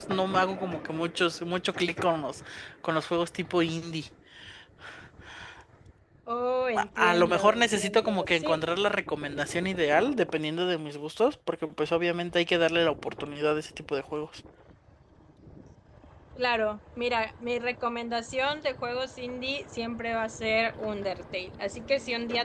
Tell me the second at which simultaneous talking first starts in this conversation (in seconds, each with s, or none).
6.8 s